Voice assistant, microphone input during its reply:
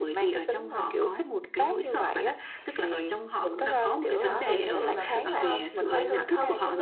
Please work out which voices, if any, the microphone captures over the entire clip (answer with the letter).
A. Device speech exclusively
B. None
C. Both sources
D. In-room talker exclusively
C